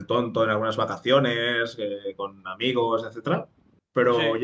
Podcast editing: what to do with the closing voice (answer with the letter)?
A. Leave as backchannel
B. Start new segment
A